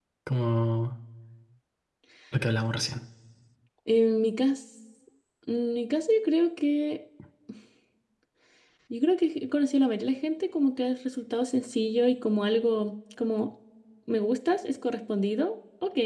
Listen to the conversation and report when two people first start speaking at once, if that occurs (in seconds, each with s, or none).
none